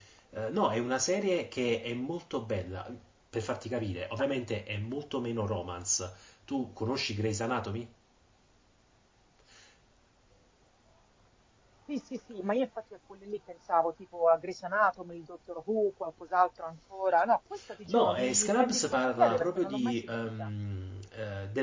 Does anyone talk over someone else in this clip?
Yes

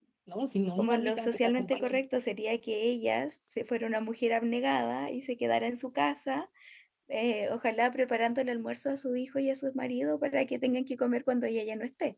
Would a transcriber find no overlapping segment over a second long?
No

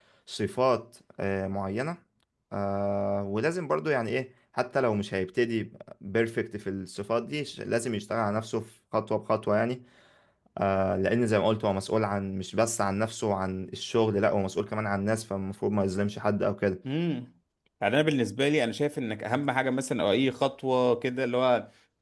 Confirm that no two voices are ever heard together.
Yes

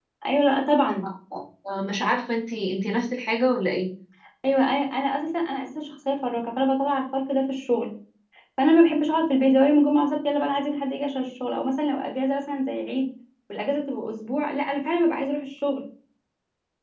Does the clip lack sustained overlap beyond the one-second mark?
Yes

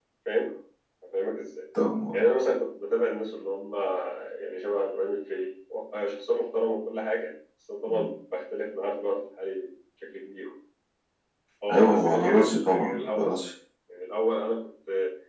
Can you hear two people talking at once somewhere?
Yes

